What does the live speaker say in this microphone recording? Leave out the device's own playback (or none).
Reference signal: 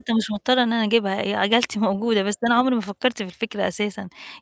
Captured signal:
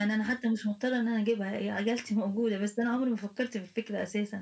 none